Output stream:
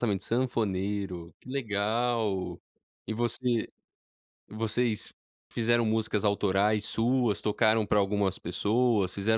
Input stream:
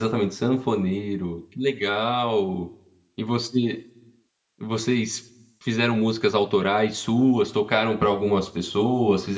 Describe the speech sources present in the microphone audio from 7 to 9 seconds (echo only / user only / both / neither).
echo only